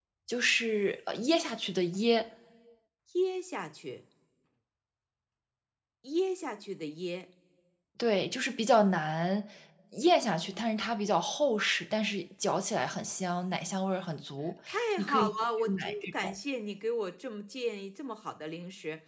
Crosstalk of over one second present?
Yes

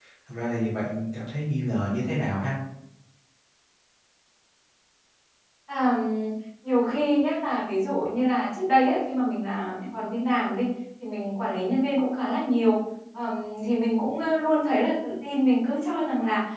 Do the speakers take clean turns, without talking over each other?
Yes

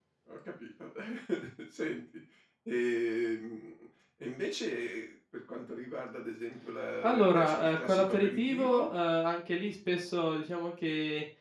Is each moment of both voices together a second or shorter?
No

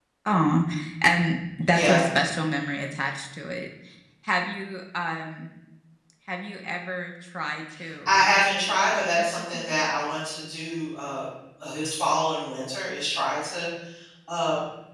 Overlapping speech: Yes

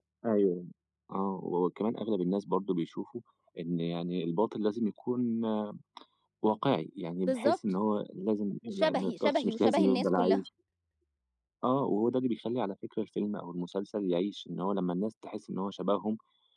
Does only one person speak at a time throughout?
No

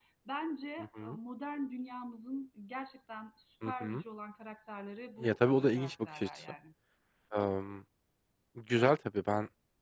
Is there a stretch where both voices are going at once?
Yes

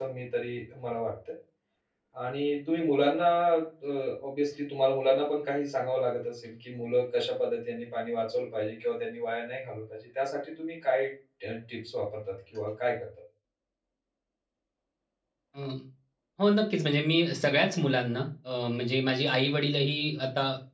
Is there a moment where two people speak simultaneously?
No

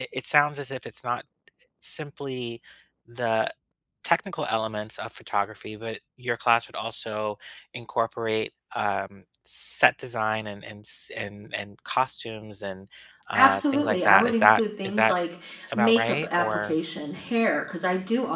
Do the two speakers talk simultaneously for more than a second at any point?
Yes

